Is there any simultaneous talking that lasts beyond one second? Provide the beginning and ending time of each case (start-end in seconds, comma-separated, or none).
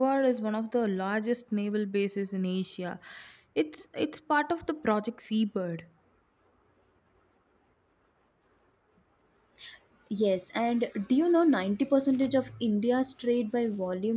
none